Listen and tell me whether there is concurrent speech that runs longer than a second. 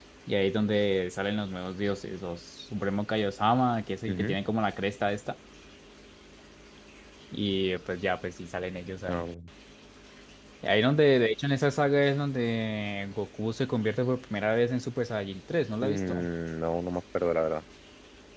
No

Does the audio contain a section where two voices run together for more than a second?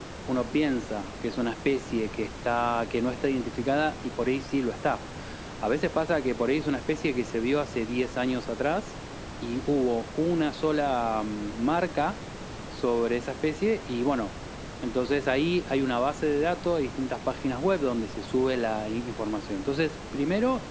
No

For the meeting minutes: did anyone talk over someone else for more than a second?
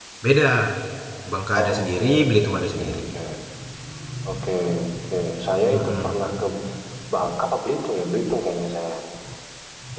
Yes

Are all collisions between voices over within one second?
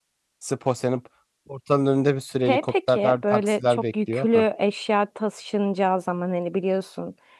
No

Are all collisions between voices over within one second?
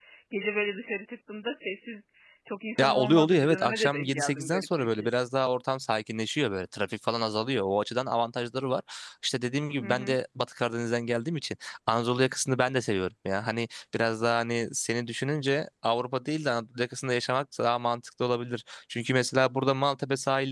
No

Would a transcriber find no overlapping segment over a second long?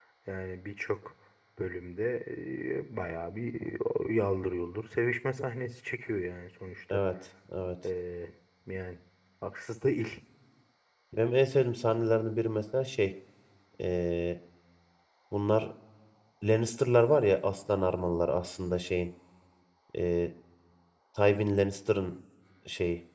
Yes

